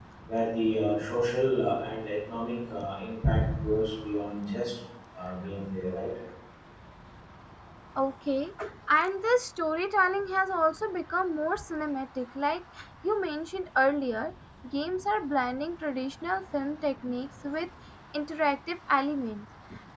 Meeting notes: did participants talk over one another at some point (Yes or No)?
No